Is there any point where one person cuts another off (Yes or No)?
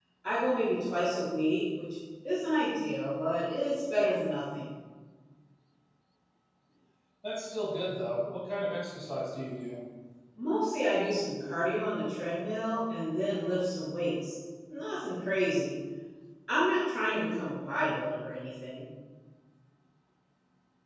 No